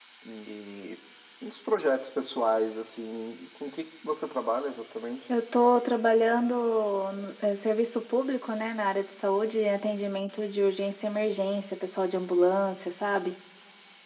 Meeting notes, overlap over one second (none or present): none